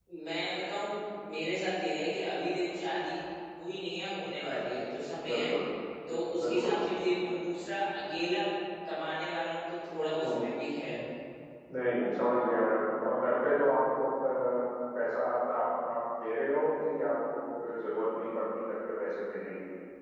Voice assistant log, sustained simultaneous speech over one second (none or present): none